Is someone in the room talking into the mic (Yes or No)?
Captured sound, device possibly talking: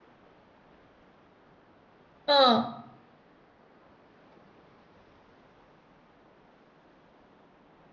Yes